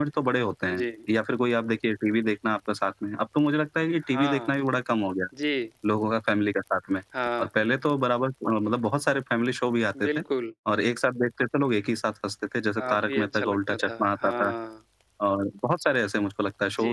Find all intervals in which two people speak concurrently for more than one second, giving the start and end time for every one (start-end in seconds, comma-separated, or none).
12.8-14.5